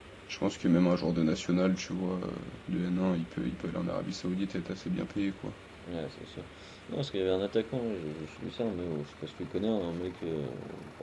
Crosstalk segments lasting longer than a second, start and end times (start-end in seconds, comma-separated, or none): none